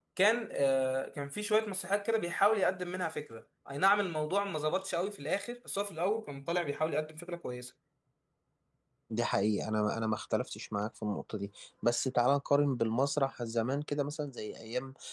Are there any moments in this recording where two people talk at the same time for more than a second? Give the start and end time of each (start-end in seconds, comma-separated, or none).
none